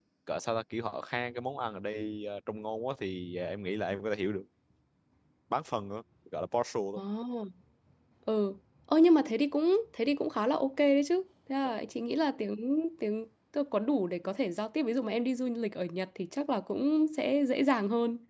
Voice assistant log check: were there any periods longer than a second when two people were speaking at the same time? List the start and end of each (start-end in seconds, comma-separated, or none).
none